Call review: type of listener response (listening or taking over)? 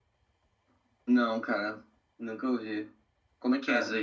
taking over